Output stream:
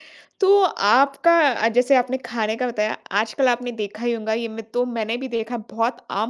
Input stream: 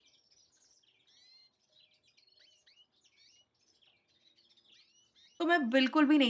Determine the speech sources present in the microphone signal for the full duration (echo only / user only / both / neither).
user only